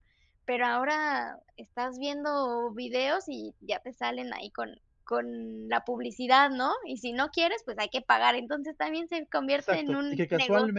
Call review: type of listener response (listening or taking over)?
taking over